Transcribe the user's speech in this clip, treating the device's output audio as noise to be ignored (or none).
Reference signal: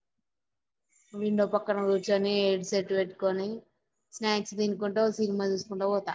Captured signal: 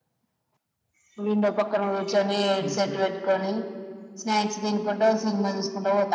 హుహు.